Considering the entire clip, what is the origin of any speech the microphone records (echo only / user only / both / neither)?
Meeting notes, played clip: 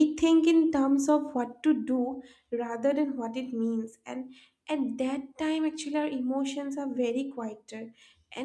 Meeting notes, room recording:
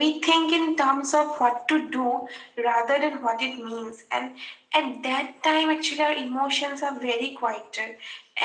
echo only